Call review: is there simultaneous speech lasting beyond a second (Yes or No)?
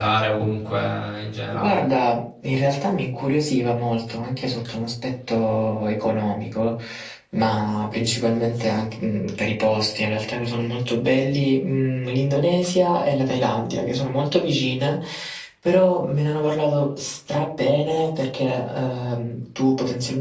No